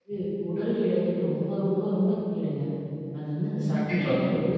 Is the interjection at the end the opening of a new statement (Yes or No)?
No